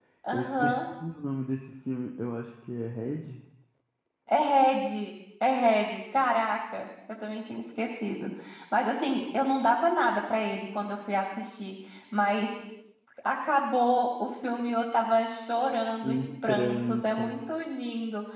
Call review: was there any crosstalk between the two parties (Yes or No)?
Yes